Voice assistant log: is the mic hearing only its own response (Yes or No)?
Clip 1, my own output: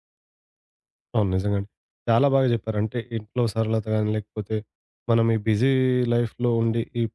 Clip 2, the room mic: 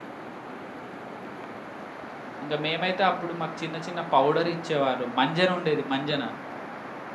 No